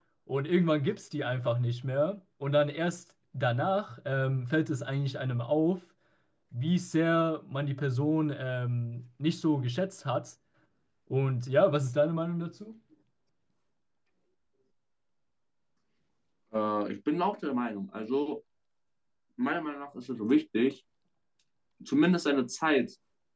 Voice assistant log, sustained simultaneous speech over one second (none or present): none